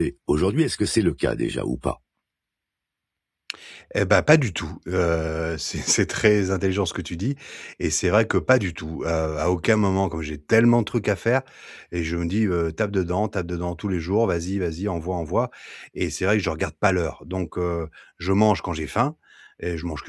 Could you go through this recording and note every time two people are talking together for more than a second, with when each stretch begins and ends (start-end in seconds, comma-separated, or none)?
none